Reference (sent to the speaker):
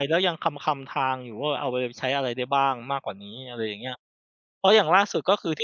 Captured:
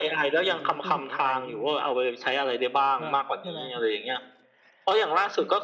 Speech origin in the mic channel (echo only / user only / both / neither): both